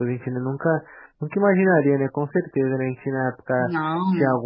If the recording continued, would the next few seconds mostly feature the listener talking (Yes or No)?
No